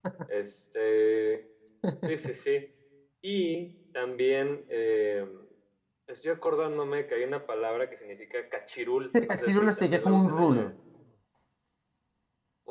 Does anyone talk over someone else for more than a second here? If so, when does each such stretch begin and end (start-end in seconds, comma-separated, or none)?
9.3-10.7